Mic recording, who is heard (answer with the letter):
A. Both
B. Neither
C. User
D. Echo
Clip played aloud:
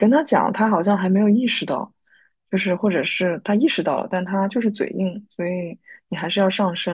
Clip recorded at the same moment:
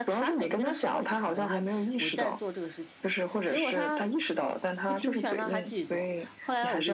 A